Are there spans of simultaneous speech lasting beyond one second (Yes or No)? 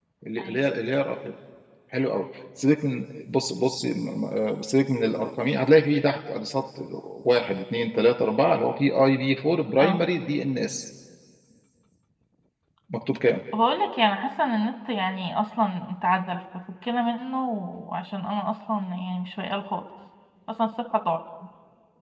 No